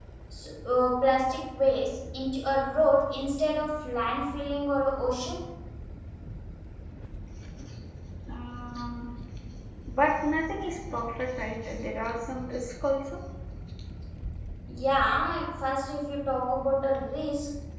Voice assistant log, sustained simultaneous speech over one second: none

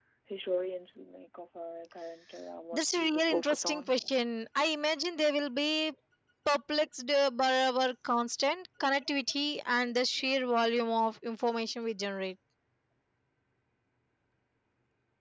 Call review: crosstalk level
present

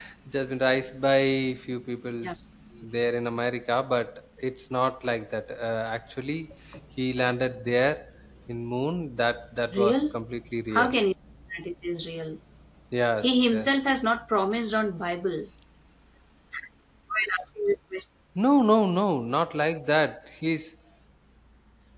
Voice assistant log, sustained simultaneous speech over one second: none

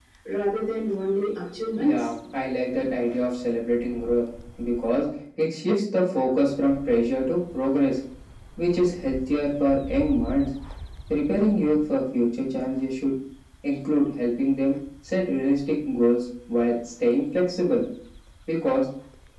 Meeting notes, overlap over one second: none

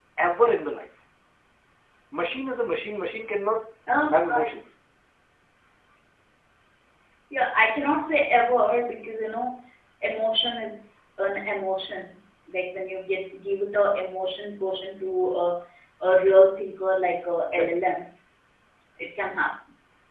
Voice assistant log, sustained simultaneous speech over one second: none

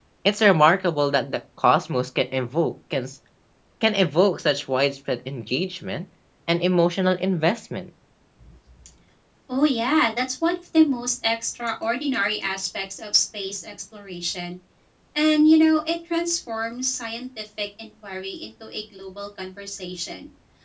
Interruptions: none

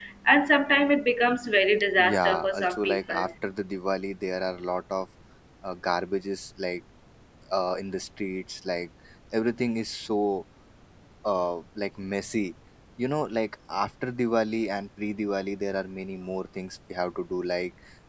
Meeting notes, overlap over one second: present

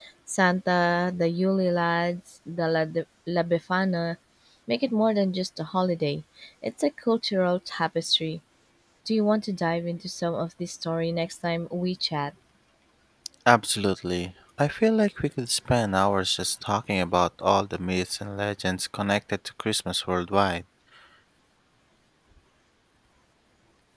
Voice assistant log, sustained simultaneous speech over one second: none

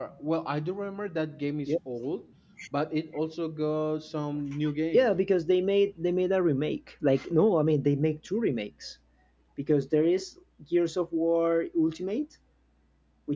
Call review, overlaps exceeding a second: none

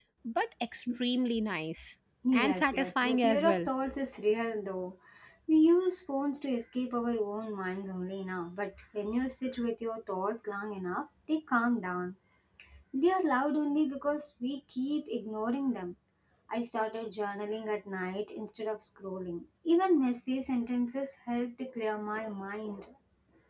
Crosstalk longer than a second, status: present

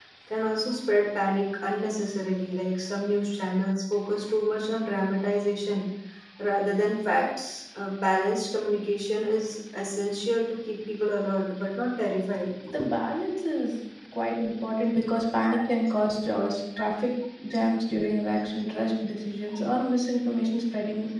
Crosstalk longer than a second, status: none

